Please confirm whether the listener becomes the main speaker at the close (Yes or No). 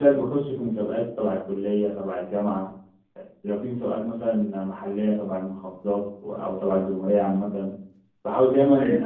Yes